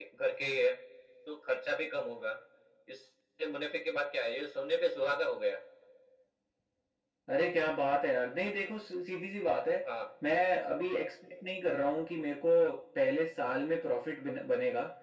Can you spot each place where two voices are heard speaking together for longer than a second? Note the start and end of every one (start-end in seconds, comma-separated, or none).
none